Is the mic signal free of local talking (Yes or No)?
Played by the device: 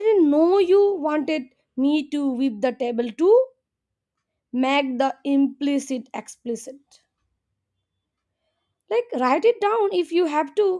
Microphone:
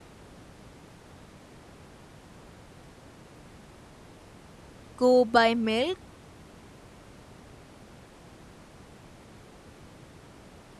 No